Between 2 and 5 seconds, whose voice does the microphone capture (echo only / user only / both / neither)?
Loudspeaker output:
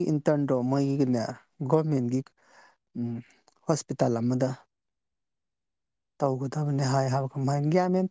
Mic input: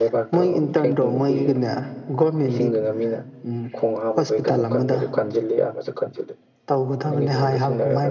both